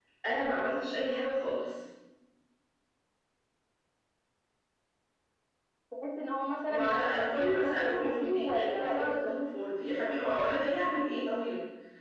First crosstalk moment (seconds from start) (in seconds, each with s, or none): 6.7 s